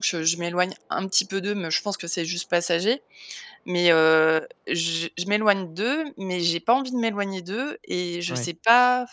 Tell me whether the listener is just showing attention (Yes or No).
Yes